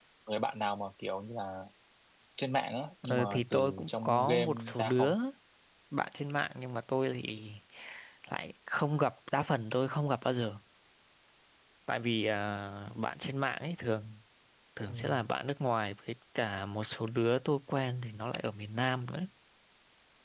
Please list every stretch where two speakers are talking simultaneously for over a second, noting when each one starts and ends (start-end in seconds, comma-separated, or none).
3.0-5.2